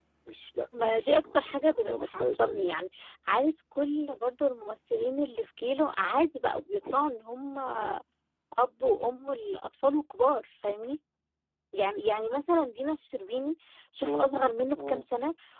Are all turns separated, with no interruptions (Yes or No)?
No